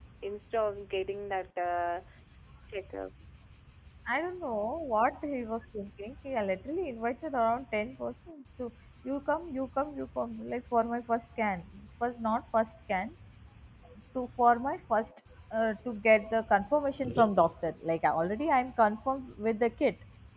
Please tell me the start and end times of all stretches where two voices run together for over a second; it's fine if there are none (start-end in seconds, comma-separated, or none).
none